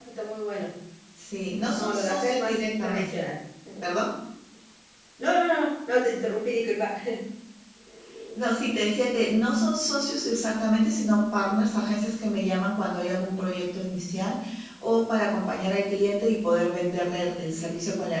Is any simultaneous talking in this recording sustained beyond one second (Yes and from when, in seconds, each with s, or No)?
Yes, from 1.7 s